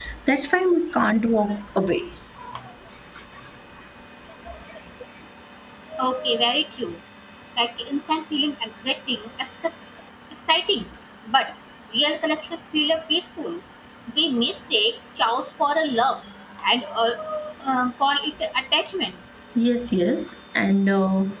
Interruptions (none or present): none